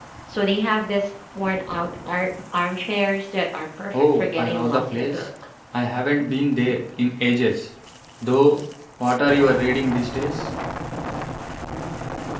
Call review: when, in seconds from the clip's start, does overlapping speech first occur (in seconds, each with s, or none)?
3.9 s